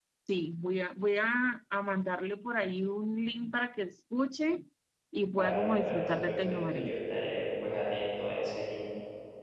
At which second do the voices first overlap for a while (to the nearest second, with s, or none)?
5 s